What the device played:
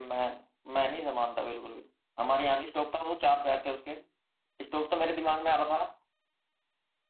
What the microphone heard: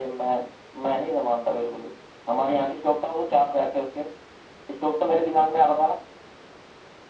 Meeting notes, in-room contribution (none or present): none